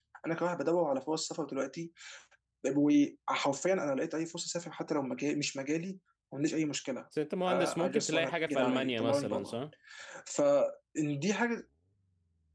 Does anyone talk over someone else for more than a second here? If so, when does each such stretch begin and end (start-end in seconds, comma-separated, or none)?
7.5-9.6